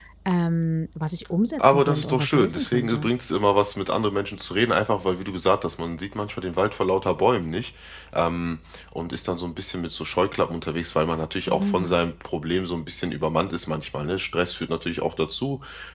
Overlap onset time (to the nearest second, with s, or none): 2 s